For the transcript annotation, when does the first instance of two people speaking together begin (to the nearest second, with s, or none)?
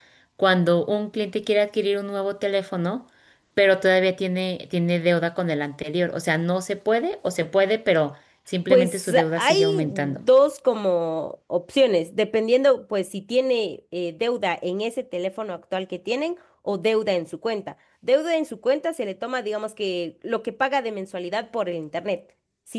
9 s